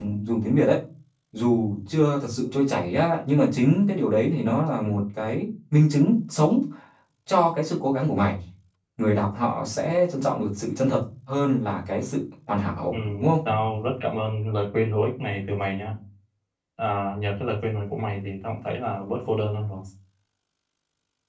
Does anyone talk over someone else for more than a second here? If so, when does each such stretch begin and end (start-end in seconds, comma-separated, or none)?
none